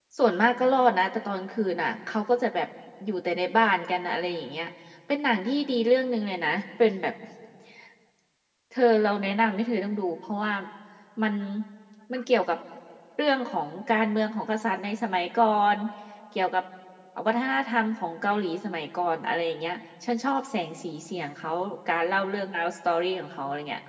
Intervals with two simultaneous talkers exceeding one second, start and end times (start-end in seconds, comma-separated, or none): none